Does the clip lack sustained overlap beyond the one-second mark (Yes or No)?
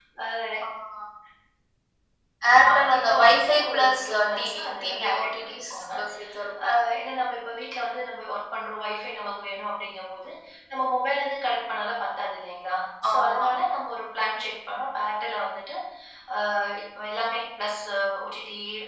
No